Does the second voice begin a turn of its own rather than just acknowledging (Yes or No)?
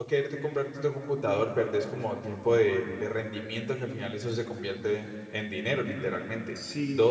No